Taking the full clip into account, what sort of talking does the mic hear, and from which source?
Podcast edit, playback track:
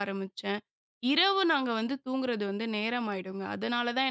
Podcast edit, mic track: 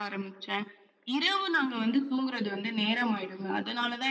echo only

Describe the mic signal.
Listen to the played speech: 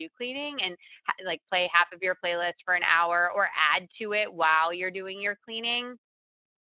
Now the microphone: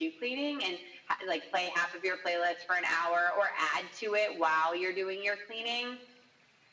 echo only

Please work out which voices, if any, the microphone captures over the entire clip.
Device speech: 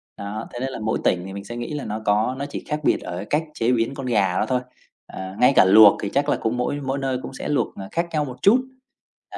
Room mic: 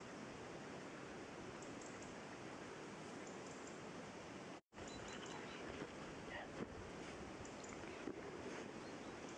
neither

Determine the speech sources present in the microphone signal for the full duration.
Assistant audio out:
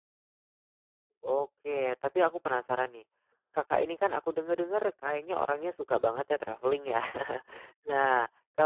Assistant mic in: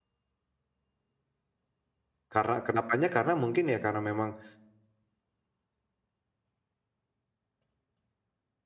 user only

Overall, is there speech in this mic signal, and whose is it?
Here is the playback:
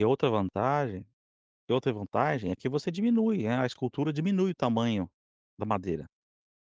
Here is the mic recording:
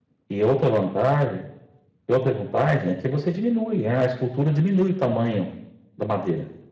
echo only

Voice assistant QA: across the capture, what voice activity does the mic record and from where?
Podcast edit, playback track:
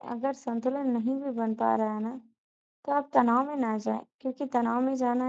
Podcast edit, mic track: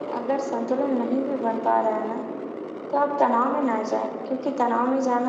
echo only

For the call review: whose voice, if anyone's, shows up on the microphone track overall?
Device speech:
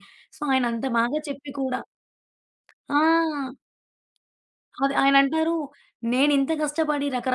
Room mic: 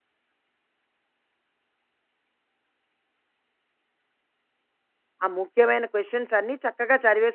user only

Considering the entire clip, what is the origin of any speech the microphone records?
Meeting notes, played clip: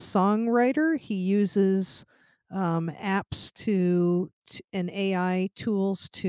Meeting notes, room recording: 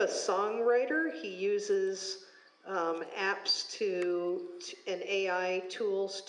echo only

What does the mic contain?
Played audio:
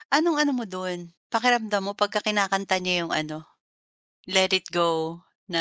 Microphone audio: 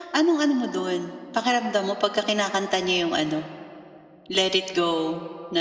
echo only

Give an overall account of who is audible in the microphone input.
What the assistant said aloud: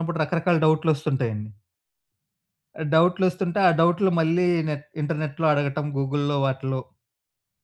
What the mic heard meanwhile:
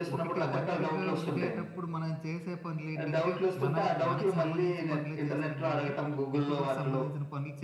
both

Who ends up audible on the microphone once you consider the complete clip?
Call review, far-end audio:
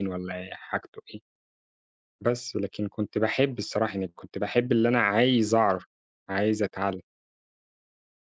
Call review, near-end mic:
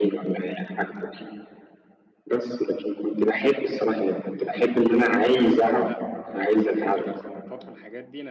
both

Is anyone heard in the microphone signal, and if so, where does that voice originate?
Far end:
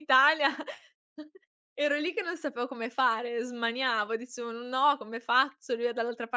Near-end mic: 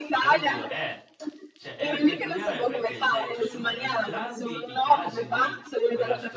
both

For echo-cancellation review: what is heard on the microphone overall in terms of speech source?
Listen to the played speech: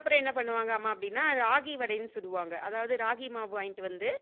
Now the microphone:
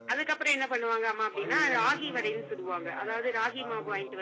both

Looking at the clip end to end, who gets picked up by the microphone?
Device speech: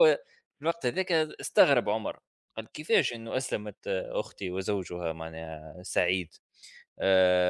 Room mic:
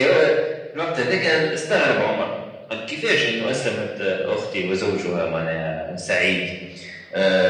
echo only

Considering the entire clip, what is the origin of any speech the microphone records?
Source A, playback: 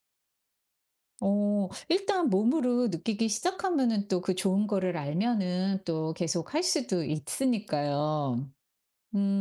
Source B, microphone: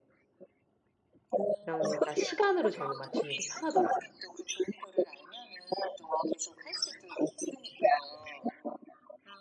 both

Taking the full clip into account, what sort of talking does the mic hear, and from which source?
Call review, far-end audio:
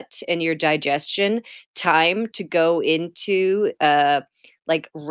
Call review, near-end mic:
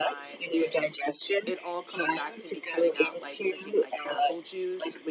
both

